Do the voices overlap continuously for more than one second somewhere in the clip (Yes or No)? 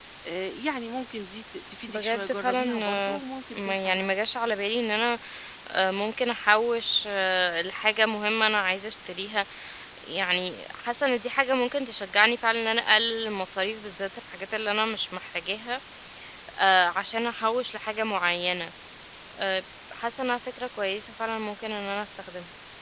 Yes